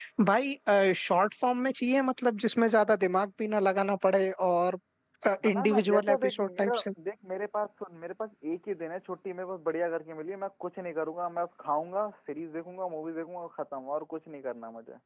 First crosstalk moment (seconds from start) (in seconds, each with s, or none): 5.5 s